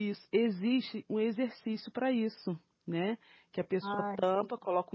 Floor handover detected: No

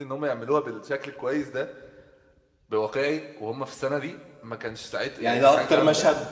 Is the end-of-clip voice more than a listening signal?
Yes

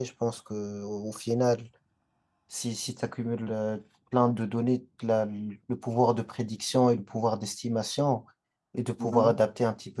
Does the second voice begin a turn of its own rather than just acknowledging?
No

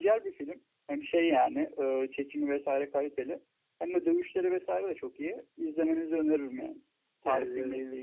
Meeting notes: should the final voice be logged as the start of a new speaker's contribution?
Yes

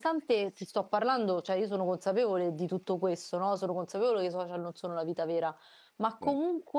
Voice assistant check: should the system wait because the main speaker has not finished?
Yes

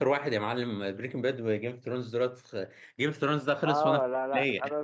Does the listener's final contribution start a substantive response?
Yes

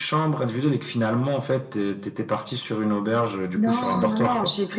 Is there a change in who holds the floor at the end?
Yes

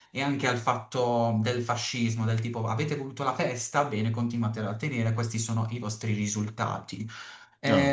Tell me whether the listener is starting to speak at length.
No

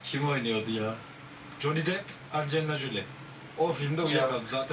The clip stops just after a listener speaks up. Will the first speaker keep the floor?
Yes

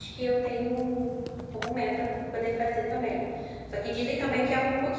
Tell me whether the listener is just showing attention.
Yes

